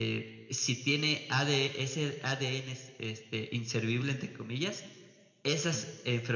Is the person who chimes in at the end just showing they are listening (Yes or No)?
Yes